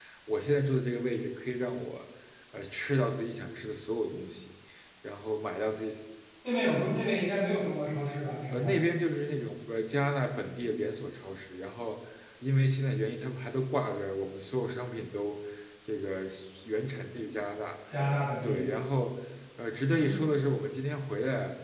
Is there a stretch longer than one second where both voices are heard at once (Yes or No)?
No